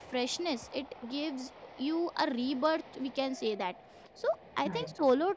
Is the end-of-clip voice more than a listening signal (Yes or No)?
No